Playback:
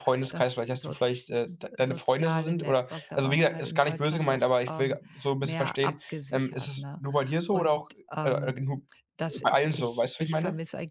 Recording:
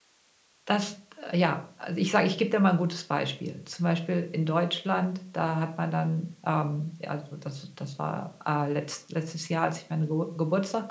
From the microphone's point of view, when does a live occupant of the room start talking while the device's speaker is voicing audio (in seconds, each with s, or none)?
0.7 s